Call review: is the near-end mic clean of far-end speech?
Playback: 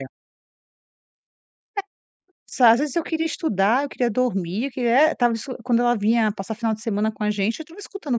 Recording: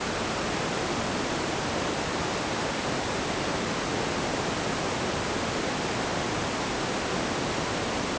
Yes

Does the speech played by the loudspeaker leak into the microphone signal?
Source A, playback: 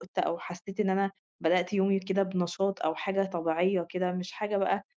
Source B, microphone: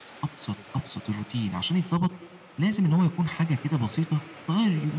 No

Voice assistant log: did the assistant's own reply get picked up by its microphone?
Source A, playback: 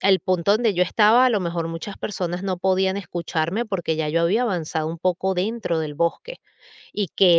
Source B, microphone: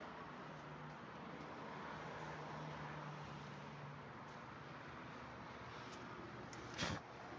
No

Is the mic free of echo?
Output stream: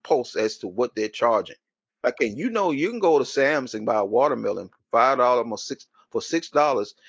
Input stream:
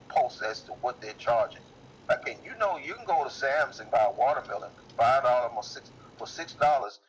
No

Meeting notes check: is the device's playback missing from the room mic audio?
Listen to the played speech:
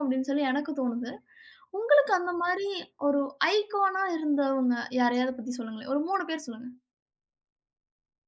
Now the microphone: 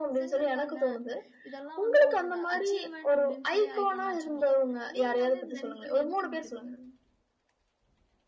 No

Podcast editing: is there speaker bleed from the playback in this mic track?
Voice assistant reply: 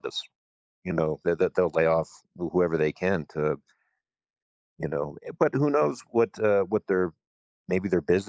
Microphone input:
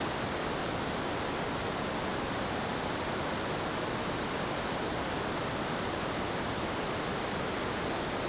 No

